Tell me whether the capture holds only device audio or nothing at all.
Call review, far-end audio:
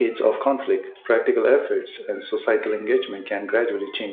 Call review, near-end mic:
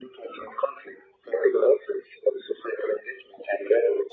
Yes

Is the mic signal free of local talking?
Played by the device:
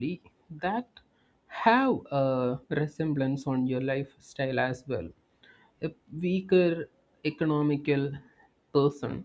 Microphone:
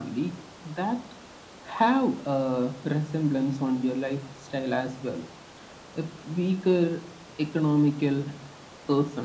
Yes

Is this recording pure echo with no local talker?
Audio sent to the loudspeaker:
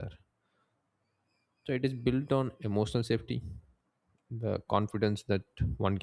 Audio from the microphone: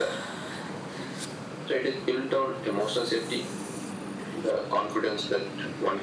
Yes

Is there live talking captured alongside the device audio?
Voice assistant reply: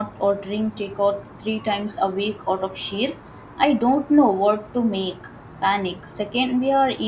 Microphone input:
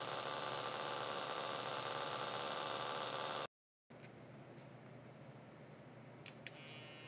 No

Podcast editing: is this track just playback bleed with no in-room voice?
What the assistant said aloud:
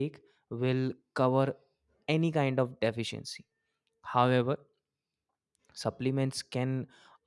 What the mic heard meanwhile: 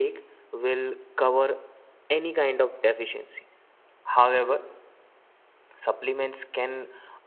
Yes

